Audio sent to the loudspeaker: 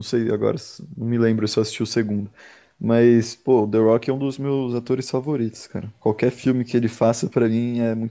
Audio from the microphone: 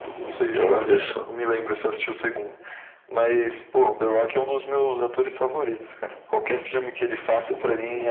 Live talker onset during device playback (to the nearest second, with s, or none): 1 s